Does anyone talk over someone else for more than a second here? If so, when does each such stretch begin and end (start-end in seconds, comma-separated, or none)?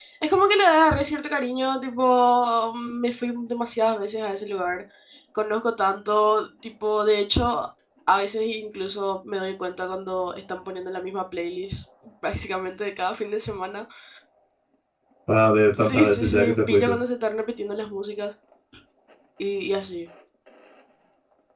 15.7-17.0